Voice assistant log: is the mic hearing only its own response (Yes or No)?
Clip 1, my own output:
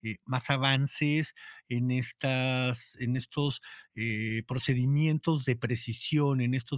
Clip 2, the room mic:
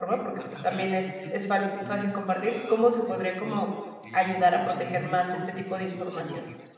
No